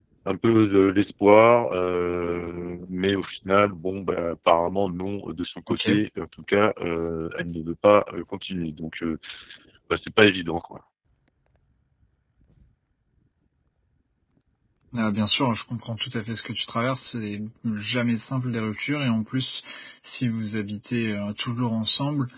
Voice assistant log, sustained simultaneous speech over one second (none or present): none